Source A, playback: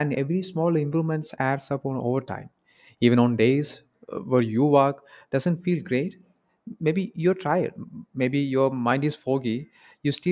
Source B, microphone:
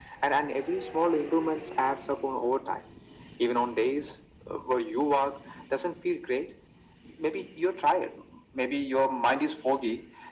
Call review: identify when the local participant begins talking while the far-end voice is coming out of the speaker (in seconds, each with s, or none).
none